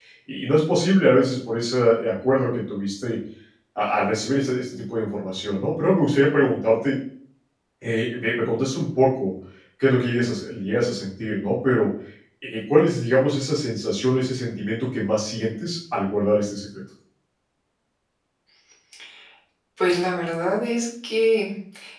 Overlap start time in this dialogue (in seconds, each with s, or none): none